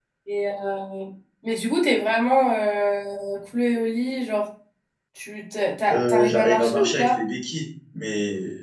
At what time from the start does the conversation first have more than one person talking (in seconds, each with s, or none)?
5.9 s